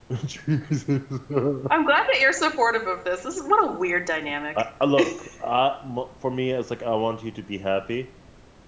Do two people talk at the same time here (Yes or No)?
No